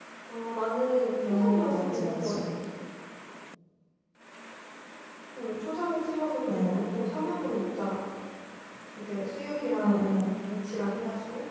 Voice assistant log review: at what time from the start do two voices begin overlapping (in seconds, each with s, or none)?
1.2 s